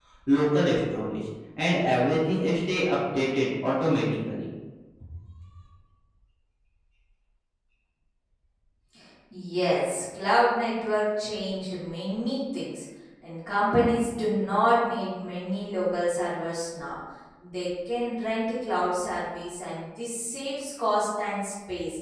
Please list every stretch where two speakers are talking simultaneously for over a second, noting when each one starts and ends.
none

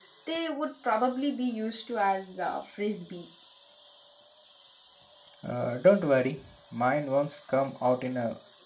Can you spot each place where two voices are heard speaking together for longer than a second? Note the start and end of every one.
none

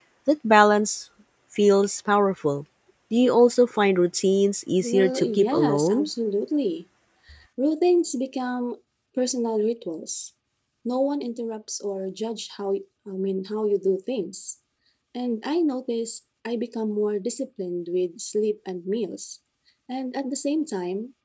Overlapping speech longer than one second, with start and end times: 4.8-6.1

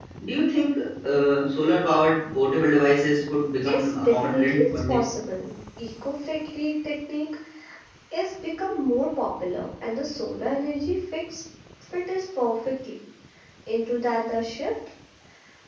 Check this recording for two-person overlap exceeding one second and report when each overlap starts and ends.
3.5-5.1

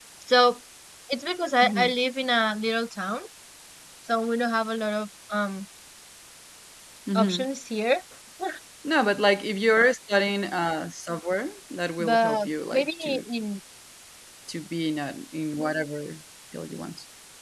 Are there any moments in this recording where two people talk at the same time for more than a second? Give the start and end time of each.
12.0-13.3

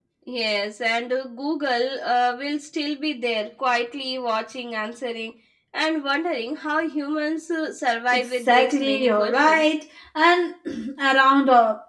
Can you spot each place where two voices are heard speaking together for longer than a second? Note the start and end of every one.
8.1-9.6

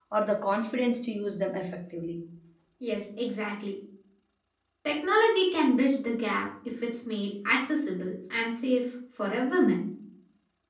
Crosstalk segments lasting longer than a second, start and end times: none

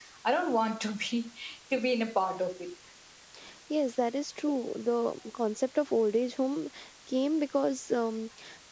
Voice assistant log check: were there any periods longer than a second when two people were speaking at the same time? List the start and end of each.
none

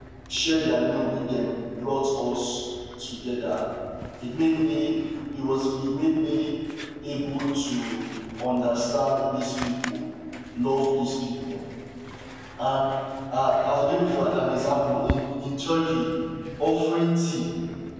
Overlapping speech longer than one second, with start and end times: none

